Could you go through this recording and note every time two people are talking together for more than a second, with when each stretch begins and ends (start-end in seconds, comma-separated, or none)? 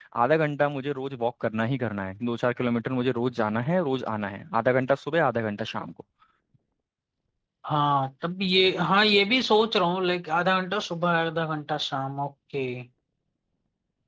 none